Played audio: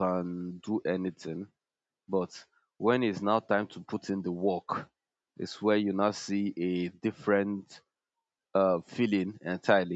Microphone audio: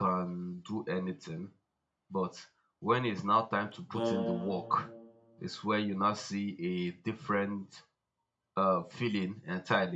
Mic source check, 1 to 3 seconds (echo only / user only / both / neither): echo only